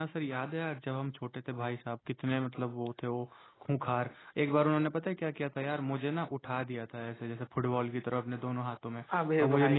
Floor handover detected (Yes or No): No